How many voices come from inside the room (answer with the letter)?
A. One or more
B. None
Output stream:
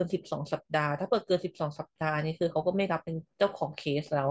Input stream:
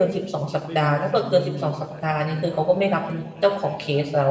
A